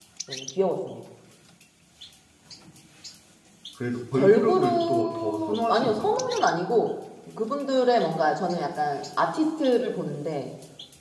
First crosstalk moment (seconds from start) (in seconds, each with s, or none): 4.1 s